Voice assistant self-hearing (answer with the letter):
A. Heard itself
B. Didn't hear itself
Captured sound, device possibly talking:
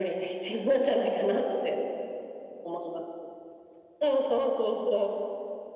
A